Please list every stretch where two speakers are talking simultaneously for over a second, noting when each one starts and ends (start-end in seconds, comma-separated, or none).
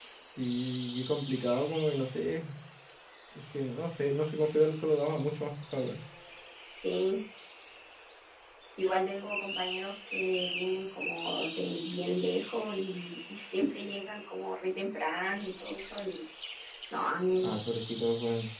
none